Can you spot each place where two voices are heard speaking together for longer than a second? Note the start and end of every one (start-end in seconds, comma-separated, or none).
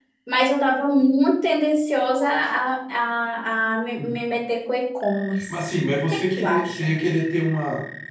5.6-6.9